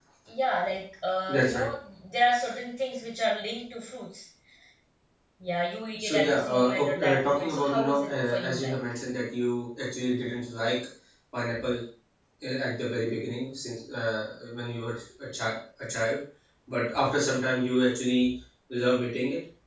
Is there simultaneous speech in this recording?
Yes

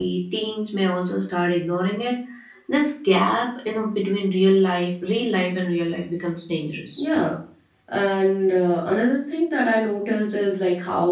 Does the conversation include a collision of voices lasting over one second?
No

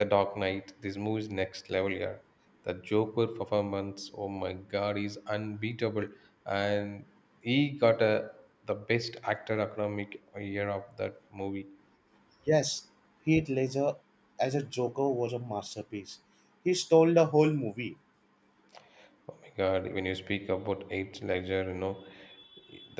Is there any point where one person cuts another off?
No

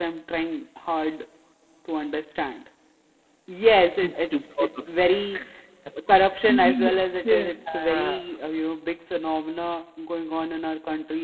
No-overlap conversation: No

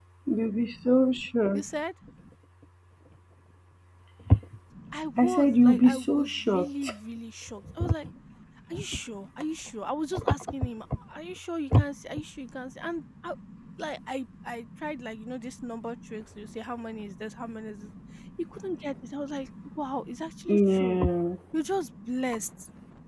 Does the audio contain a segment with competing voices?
Yes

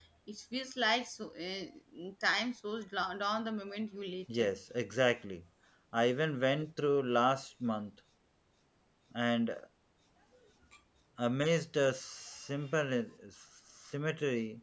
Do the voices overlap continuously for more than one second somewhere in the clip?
No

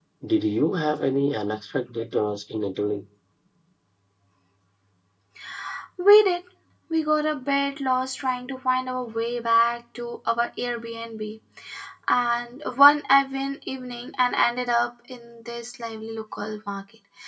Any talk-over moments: No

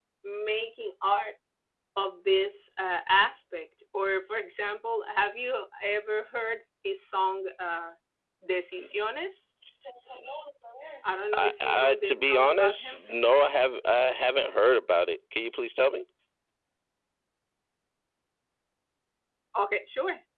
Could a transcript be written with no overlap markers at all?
No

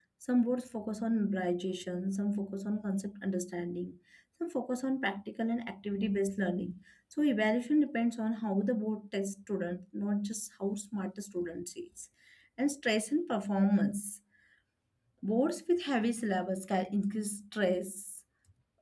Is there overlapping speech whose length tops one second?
No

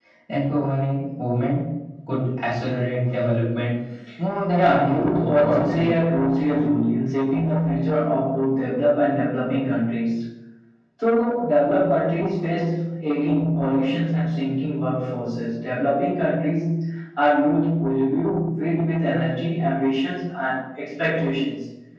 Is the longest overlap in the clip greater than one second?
Yes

